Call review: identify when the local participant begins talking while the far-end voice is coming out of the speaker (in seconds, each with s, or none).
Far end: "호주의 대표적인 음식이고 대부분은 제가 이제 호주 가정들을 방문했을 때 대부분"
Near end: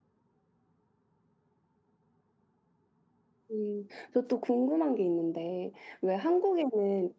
3.5 s